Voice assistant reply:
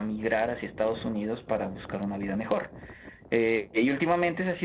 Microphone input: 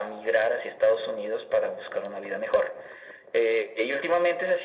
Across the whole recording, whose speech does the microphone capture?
echo only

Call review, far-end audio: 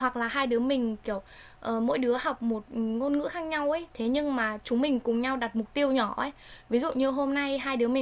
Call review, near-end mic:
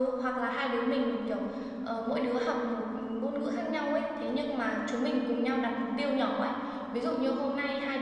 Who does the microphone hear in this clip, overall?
echo only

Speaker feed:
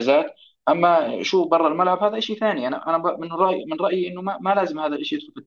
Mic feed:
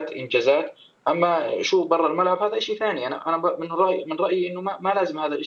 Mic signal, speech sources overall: echo only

